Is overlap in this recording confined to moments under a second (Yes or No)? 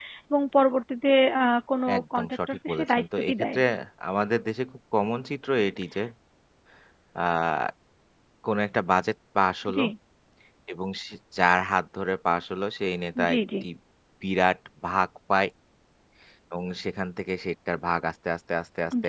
No